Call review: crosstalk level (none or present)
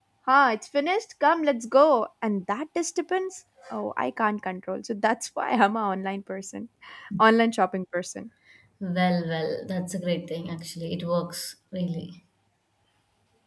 none